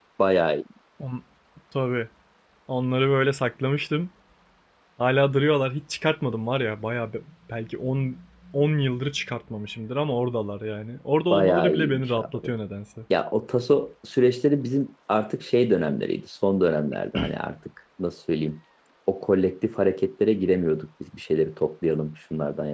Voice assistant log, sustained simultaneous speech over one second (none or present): present